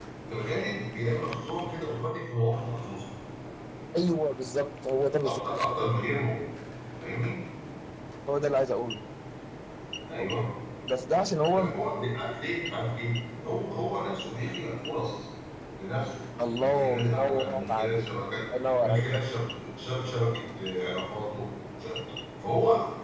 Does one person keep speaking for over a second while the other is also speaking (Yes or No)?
Yes